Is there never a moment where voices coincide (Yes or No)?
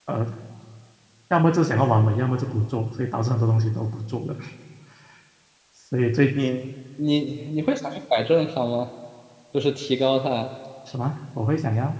Yes